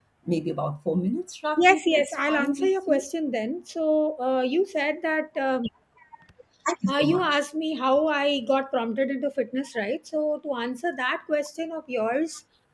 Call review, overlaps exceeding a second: present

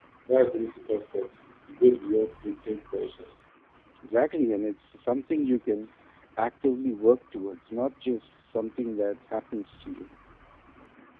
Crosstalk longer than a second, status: none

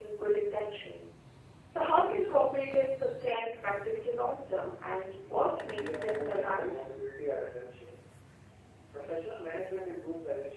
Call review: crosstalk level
present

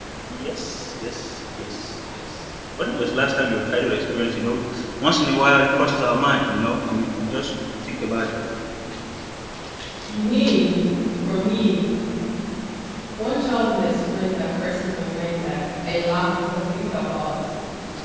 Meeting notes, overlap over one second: none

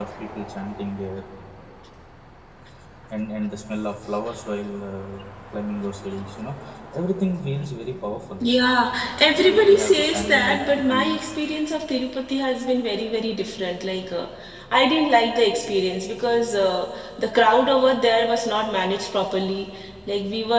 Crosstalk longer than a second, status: present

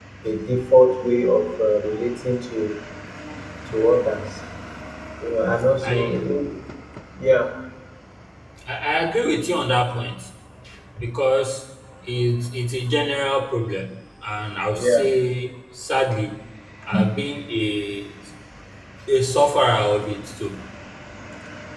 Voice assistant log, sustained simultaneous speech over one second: none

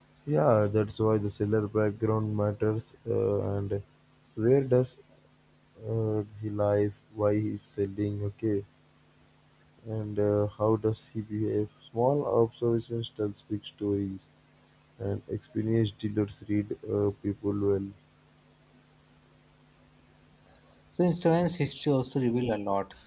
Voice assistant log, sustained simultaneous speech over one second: none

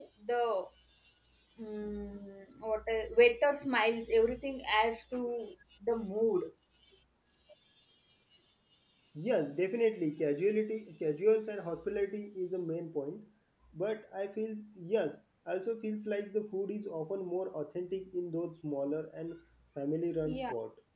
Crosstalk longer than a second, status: none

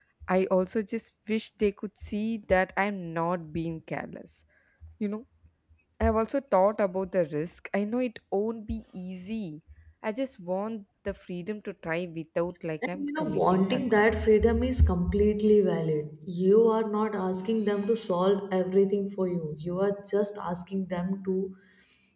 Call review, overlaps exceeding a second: present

